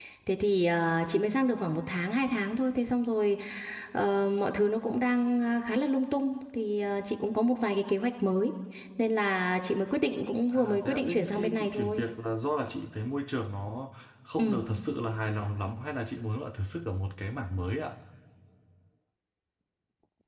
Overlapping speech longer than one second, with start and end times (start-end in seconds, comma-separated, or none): 10.5-12.0